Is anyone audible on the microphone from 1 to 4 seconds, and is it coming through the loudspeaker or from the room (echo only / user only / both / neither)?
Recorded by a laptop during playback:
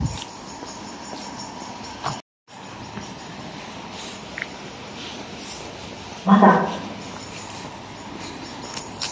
neither